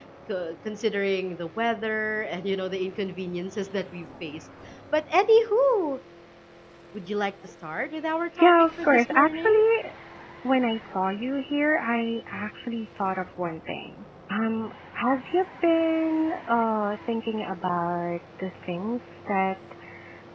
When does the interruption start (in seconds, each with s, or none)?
8.3 s